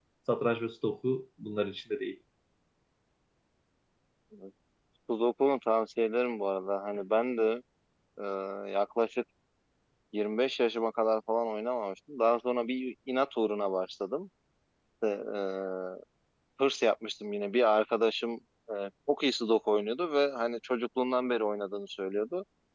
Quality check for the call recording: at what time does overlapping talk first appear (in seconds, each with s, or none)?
none